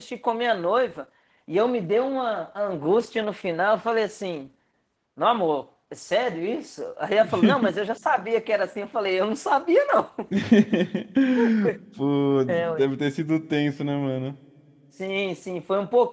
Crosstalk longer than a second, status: none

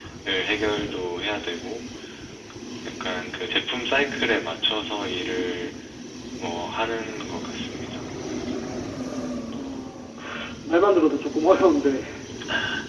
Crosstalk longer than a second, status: none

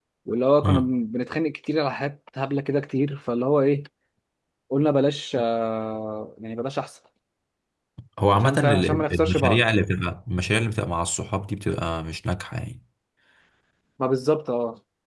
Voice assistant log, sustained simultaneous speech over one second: present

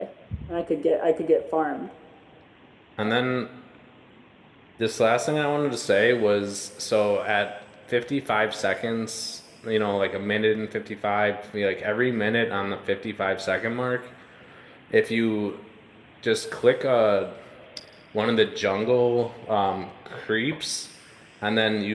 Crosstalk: none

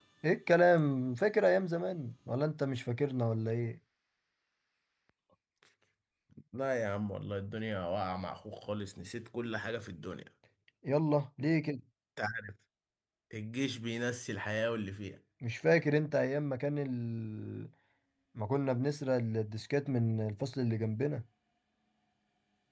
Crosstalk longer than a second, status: none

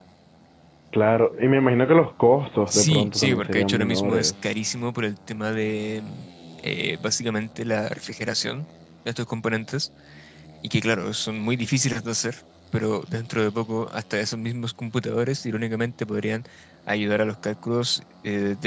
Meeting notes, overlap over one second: present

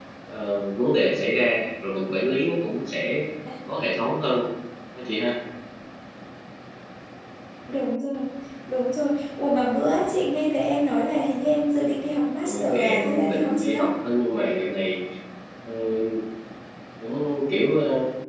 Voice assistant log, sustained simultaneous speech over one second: present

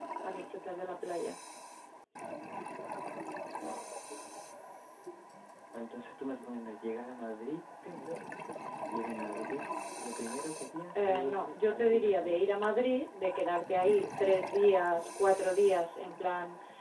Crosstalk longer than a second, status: present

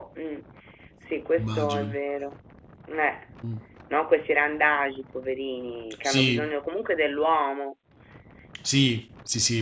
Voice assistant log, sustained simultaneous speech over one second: none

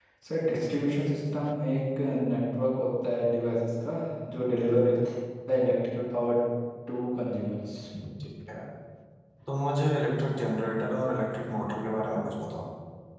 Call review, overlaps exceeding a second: none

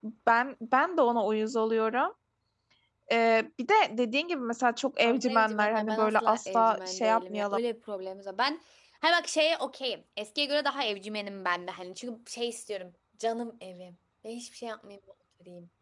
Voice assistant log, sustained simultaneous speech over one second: present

